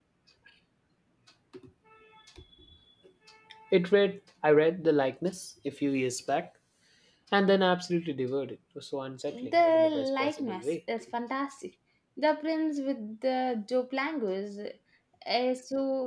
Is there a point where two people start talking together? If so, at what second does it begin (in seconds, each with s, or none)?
9.3 s